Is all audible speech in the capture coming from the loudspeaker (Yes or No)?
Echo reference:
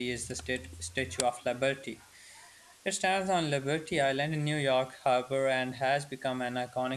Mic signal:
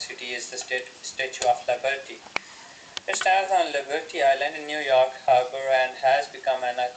Yes